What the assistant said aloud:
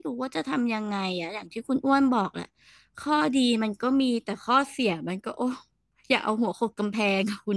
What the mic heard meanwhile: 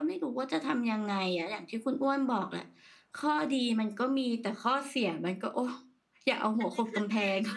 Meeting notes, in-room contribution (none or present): present